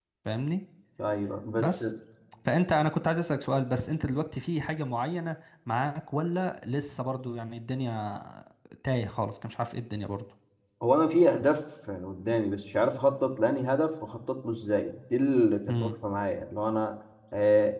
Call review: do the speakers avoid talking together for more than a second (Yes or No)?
Yes